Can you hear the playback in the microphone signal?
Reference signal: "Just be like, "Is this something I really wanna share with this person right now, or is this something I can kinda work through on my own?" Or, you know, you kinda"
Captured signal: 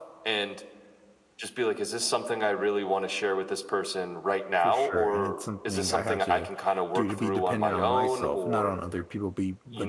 Yes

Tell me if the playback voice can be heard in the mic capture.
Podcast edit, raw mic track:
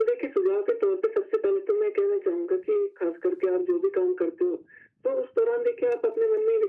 Yes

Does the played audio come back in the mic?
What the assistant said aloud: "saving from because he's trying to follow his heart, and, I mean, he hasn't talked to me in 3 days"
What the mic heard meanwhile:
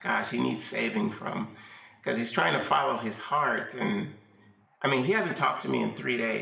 Yes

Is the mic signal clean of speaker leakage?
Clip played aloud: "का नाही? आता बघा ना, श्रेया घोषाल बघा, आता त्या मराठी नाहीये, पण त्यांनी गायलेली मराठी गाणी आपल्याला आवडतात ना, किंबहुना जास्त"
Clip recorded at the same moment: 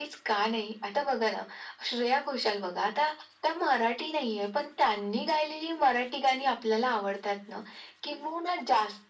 No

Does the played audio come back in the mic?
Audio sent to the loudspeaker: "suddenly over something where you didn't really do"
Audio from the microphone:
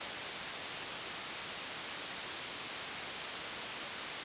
No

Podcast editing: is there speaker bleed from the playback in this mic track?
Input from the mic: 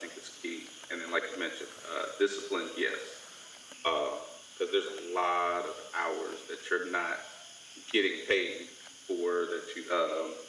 Yes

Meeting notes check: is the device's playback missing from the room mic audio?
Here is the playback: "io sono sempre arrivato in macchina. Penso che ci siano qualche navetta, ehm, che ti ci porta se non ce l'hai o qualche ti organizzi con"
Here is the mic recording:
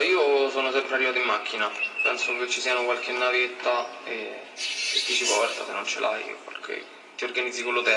No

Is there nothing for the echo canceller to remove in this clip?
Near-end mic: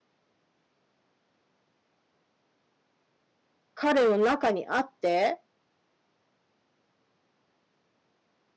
Yes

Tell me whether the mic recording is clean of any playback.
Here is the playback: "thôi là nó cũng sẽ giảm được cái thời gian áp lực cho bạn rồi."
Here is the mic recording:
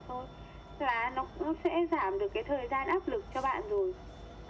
No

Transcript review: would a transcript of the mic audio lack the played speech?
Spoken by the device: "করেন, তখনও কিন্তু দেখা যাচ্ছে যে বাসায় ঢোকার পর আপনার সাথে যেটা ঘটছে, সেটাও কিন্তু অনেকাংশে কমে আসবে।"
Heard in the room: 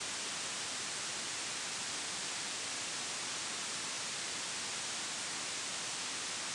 Yes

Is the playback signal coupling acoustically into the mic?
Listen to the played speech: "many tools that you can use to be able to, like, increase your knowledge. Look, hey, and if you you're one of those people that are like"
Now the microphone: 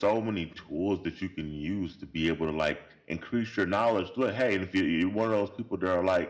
Yes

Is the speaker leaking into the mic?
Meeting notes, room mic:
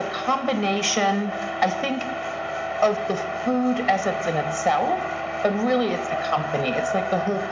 Yes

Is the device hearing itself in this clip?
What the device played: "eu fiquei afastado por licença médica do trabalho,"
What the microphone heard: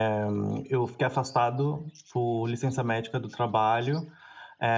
Yes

